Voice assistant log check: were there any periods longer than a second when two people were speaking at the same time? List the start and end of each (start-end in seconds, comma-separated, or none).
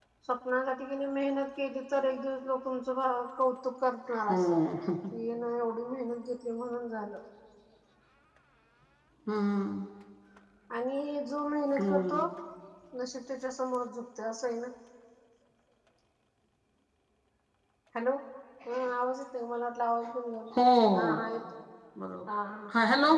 none